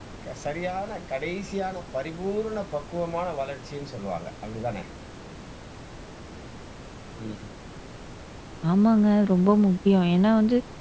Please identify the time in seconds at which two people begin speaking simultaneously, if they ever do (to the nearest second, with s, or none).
none